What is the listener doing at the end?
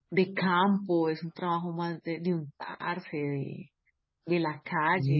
listening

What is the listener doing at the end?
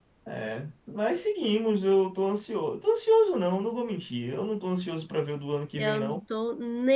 taking over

